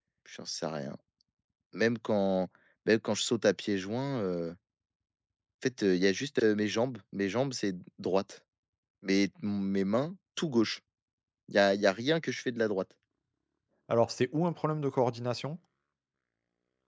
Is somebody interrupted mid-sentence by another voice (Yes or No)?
No